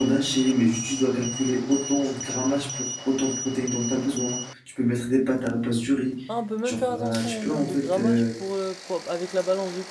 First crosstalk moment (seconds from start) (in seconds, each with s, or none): 6.6 s